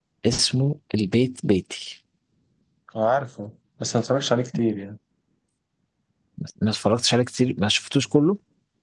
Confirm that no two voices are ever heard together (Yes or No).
Yes